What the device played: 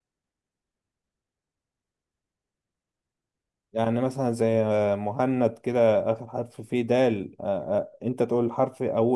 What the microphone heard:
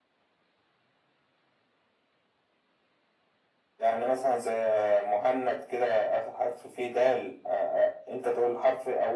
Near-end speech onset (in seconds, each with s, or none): none